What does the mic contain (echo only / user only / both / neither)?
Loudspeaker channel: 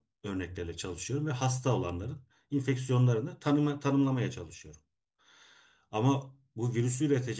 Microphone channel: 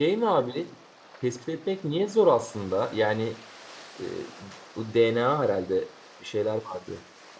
user only